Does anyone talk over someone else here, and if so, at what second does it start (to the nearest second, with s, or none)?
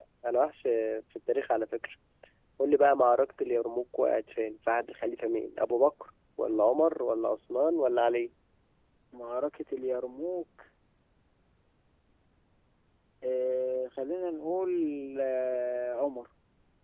none